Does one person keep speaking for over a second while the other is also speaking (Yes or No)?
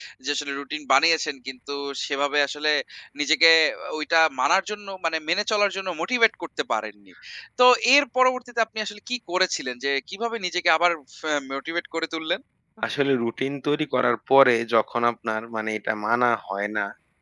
No